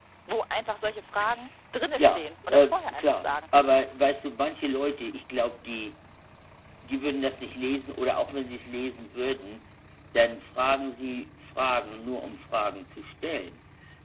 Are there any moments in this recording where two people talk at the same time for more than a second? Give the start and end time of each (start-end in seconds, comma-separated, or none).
2.0-3.3